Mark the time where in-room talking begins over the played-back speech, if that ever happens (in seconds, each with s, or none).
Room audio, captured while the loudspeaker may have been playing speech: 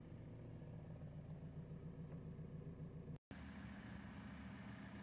none